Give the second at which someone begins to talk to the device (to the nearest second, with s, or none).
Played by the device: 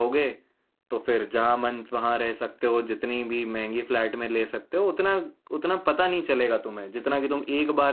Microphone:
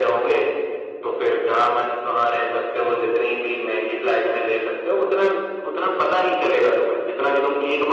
none